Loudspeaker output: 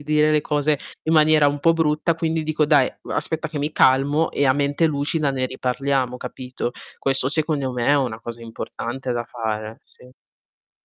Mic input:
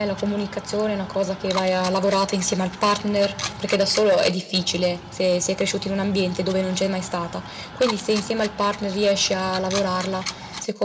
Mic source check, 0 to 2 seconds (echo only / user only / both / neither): user only